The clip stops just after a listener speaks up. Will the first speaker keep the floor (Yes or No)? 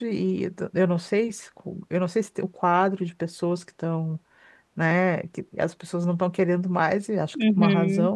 No